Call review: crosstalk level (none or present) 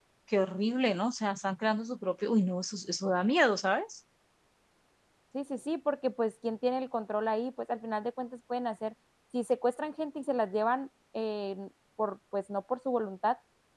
none